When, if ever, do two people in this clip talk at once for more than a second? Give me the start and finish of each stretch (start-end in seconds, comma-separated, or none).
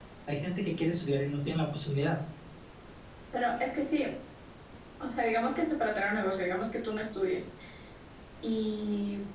none